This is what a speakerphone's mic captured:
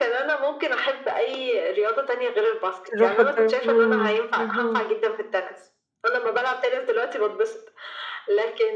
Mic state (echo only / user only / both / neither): both